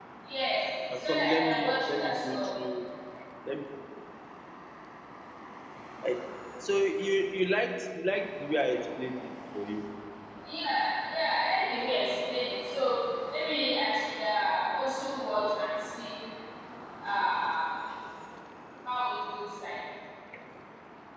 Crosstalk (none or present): present